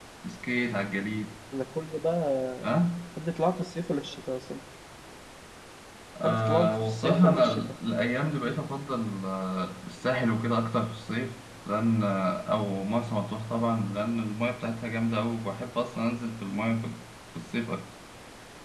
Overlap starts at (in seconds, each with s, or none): 6.2 s